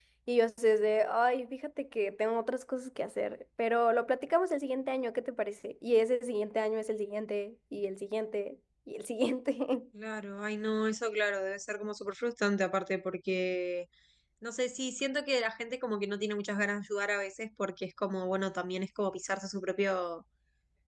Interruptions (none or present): none